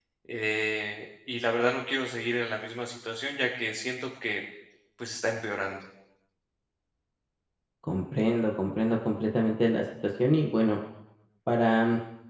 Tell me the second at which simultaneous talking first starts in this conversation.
none

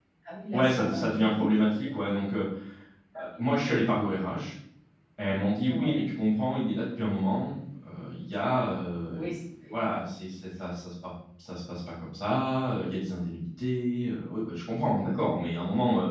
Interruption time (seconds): 0.5 s

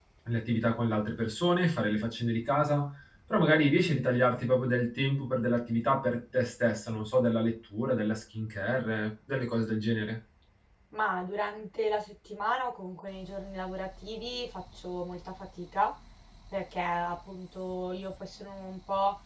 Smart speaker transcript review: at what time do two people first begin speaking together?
none

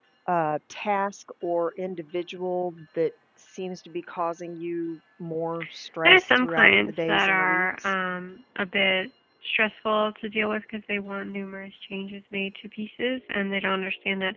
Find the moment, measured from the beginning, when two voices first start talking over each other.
6.0 s

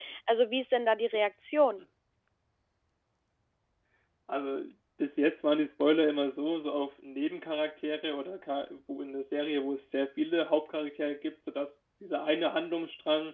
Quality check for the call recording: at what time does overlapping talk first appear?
none

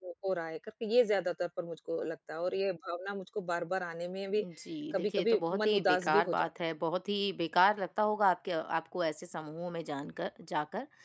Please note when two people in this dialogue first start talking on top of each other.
4.9 s

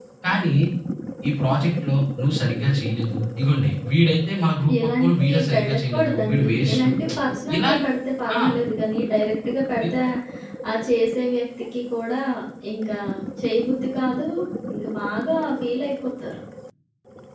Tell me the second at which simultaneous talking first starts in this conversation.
4.8 s

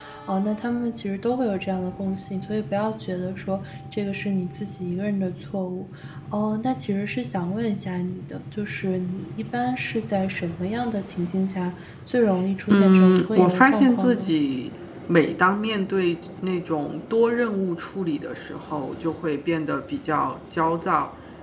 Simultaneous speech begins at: 12.7 s

